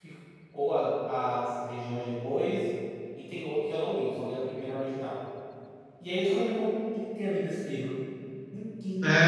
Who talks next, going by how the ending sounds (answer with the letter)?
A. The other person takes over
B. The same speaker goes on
A